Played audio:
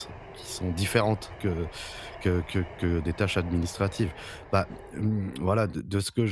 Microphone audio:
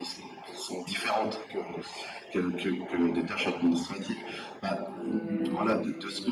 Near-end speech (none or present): present